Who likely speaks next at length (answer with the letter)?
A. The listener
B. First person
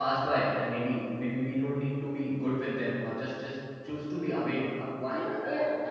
A